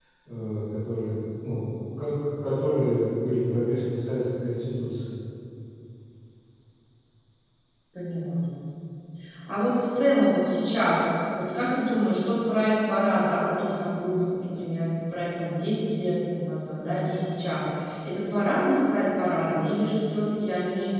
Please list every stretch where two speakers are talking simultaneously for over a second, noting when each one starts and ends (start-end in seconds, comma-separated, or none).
none